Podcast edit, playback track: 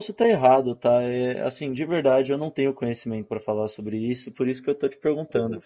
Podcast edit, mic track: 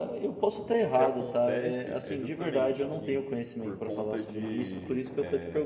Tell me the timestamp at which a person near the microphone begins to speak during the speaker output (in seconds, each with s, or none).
0.8 s